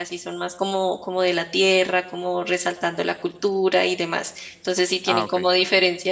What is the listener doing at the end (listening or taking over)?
listening